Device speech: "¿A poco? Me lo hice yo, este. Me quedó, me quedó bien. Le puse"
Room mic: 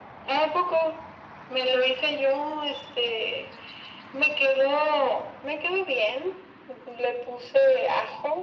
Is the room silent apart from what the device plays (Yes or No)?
Yes